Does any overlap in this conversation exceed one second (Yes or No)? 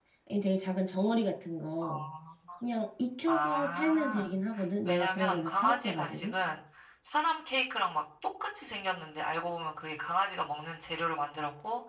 Yes